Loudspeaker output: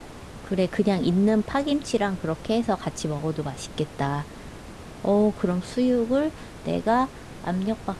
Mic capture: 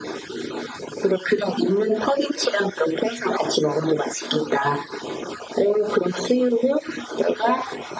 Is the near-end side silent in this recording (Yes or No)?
Yes